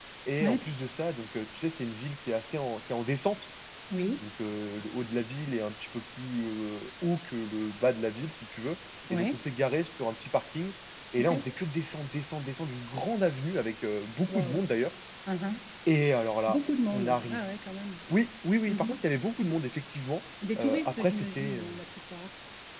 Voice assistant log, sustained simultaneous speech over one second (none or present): present